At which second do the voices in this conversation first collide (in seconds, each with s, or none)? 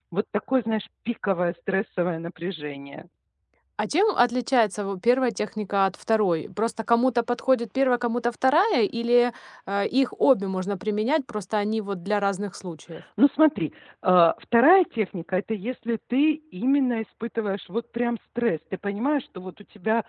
none